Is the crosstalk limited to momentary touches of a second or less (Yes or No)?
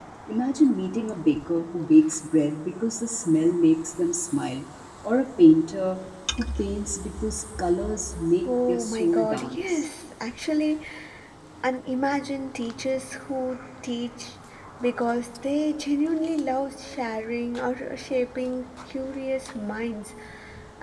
No